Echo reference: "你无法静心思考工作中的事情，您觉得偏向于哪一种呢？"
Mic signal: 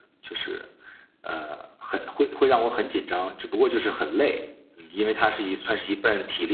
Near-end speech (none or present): present